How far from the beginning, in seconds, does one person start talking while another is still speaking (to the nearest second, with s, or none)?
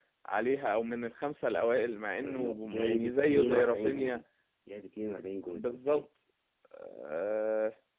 2 s